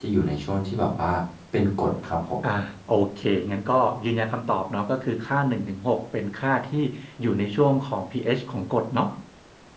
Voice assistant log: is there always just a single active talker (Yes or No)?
Yes